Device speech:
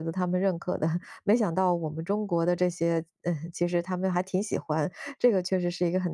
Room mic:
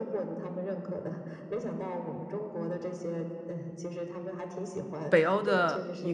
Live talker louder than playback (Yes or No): Yes